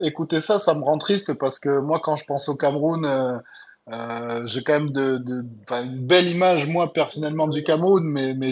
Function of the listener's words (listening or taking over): listening